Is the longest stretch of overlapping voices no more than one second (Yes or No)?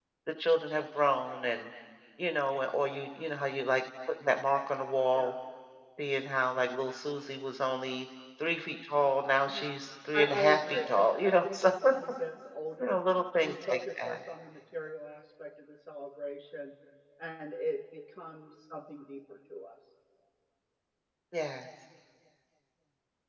No